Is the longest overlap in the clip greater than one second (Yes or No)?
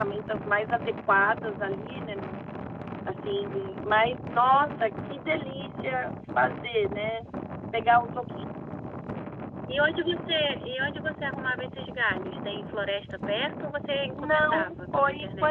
Yes